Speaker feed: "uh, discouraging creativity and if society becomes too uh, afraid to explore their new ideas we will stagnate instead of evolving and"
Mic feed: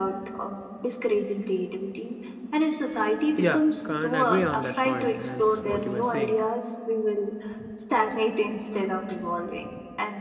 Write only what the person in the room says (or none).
Yeah, can't agree on that point as what you were saying.